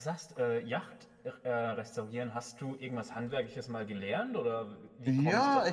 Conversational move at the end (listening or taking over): taking over